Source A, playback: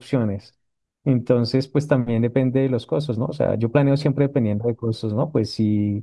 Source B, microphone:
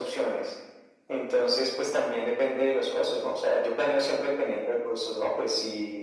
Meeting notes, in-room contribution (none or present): none